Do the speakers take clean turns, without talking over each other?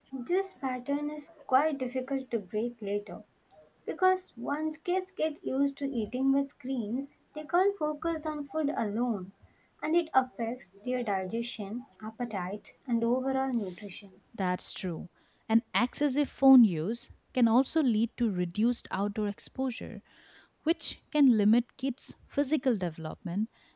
Yes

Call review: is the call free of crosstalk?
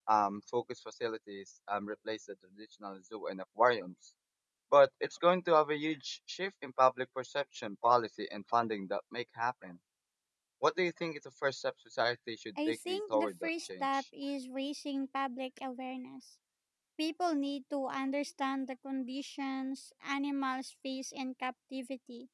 No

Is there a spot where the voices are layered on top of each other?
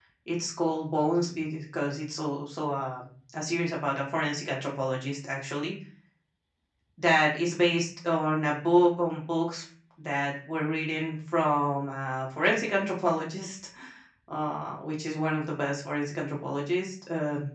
No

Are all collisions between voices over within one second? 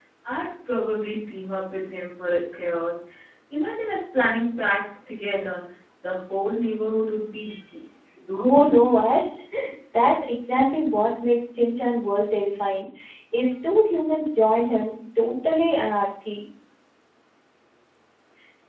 Yes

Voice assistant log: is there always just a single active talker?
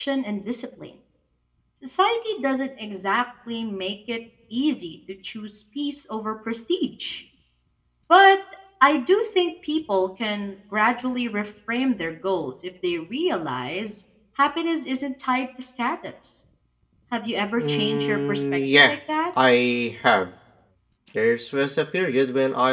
No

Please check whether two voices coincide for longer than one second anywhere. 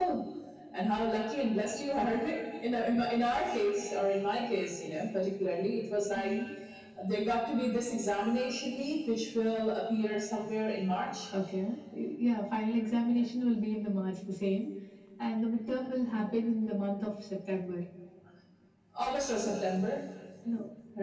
No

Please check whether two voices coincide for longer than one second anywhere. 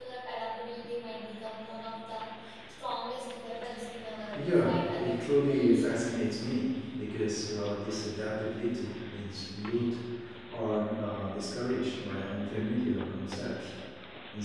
Yes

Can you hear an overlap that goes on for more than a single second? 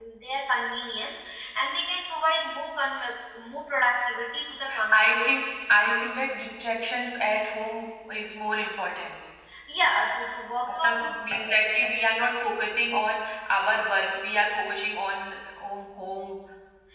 No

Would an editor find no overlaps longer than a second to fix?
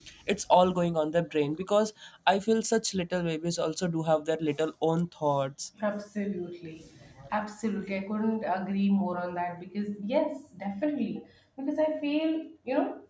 Yes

